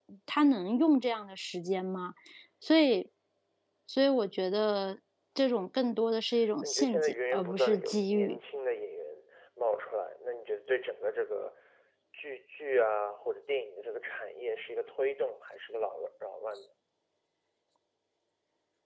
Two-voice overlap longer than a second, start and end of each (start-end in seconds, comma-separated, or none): 6.6-8.4